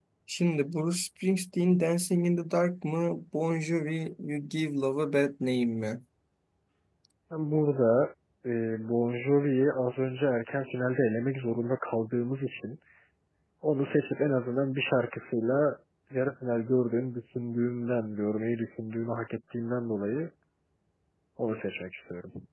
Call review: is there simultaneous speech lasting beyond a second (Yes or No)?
No